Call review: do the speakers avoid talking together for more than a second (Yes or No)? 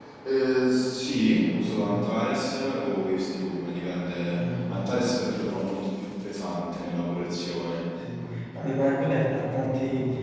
Yes